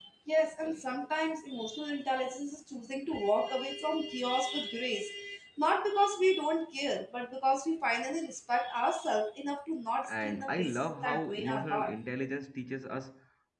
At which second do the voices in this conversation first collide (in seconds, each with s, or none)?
10.0 s